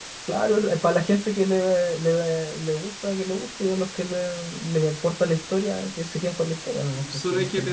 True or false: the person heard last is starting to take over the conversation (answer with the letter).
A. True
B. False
A